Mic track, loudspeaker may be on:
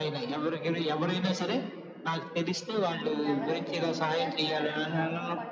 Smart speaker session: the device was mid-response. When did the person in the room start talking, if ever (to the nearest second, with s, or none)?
3 s